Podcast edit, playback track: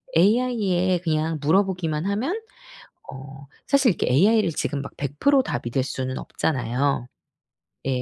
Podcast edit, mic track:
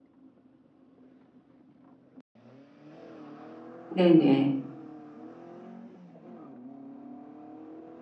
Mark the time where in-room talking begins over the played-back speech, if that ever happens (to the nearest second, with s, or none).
4 s